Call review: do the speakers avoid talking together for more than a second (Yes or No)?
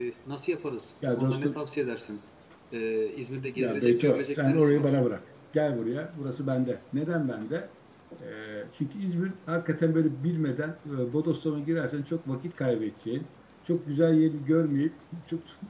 No